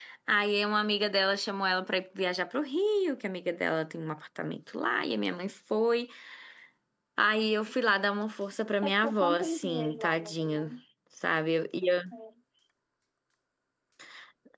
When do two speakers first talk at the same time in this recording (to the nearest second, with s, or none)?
9 s